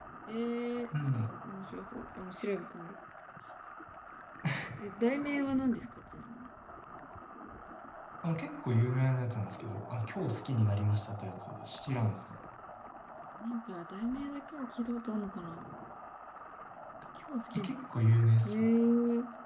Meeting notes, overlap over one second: none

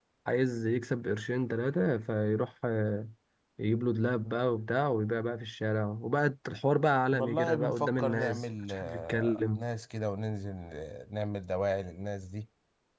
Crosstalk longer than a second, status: present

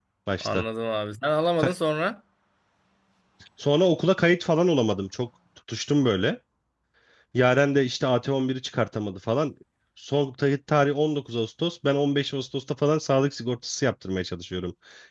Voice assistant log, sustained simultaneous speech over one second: none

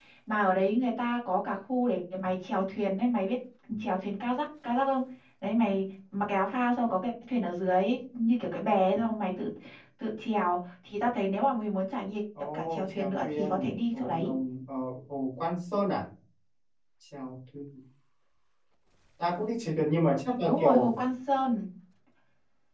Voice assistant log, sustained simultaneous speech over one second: present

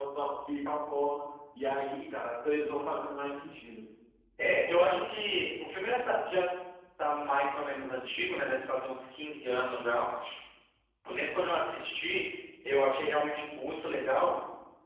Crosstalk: none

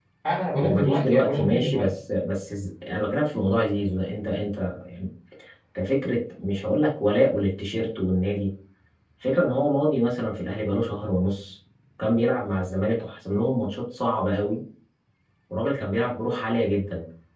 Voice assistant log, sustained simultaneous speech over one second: present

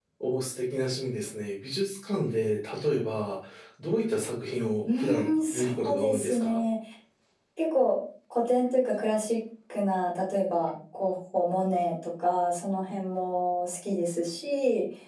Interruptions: present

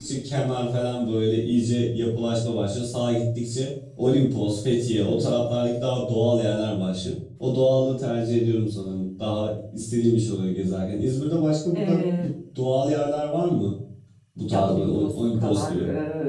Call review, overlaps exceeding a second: present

